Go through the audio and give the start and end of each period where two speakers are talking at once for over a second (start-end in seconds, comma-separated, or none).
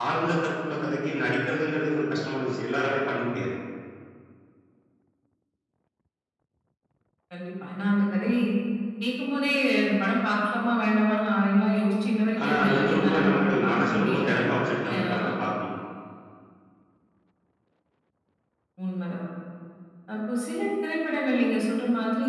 12.4-14.3